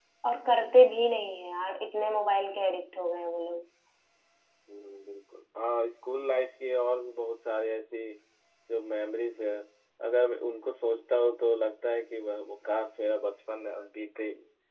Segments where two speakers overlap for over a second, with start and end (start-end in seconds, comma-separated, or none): none